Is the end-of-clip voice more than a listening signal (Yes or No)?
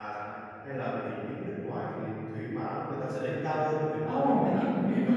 Yes